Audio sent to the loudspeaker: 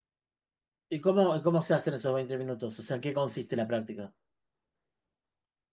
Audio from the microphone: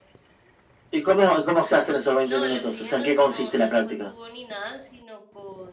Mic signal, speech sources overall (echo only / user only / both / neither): both